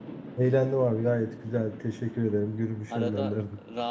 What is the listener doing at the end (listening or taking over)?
taking over